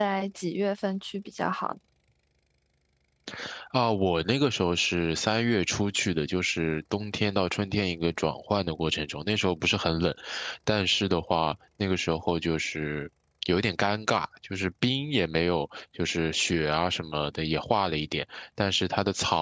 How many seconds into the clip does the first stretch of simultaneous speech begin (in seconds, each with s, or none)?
none